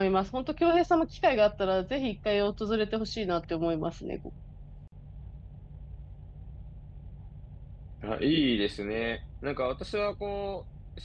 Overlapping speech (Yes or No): No